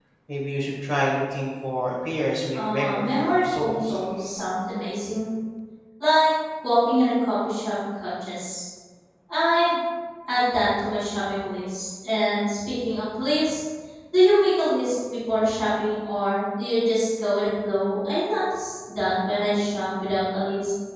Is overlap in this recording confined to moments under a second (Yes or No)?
No